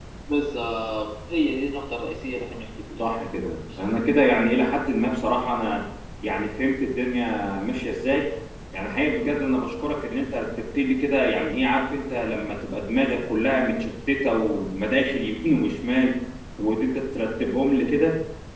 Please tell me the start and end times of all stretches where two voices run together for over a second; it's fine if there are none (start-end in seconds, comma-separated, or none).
none